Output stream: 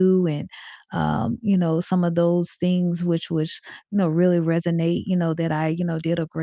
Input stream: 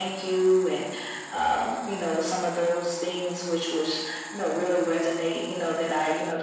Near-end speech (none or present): none